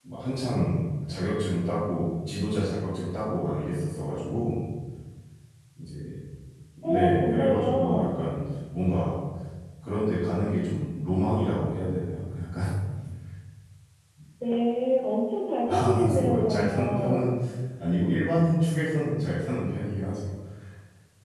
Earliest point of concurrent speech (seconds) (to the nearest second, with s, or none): 7 s